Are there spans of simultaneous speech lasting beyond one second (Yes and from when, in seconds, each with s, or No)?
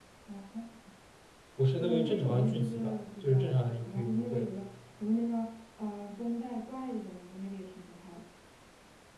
Yes, from 1.8 s